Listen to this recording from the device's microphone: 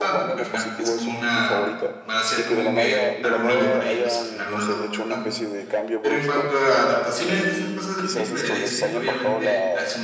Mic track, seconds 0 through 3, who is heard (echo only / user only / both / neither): both